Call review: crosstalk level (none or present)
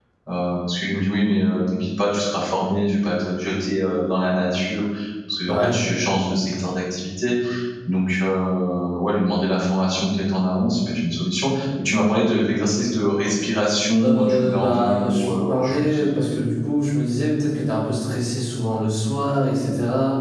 present